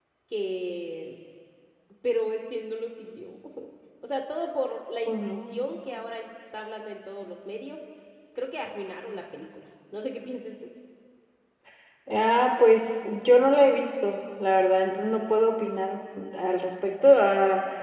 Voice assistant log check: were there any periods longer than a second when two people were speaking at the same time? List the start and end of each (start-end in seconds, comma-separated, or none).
none